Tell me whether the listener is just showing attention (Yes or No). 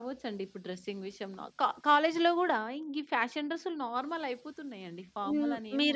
No